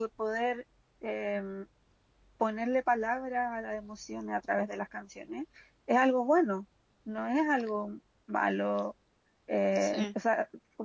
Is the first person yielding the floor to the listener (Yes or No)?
No